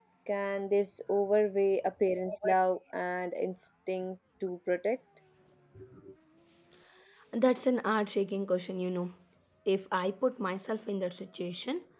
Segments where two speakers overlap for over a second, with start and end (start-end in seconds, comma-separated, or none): none